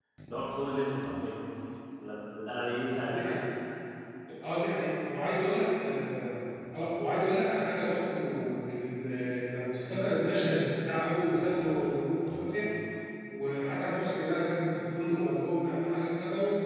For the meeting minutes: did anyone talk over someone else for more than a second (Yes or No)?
No